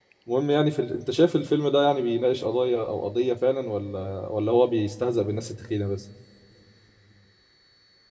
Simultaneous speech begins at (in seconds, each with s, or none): none